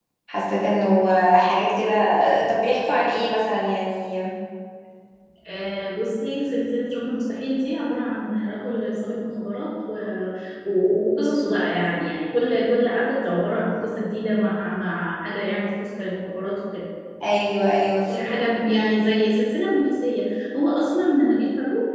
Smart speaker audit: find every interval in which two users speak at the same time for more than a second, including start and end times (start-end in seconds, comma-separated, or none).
none